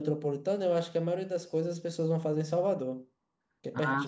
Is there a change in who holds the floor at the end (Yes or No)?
Yes